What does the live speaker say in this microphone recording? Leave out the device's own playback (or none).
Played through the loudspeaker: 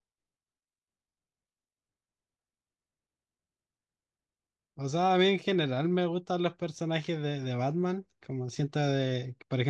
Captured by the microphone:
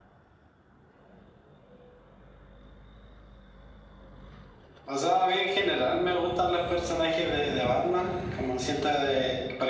none